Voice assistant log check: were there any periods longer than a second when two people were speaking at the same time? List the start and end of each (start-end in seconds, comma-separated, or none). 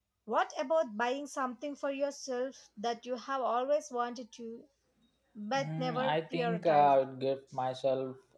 5.6-7.0